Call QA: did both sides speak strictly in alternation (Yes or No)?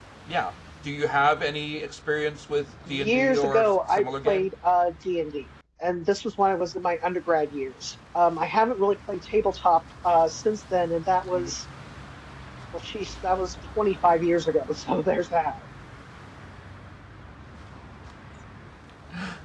No